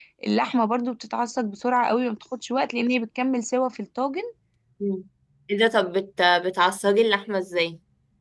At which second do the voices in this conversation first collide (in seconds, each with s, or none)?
none